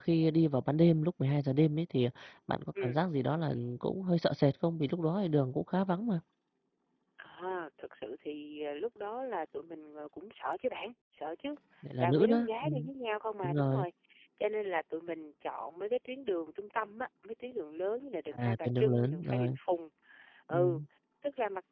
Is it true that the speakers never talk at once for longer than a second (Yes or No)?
No